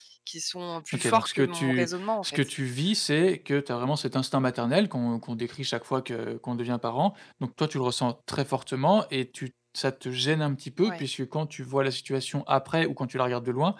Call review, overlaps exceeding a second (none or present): present